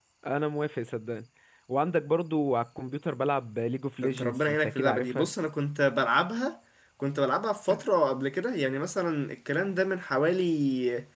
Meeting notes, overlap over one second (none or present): present